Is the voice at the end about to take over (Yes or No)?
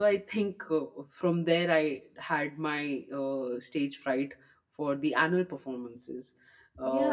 Yes